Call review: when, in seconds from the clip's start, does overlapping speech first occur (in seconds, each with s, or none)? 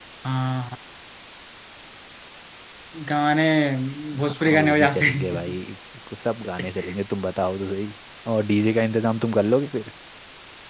4.2 s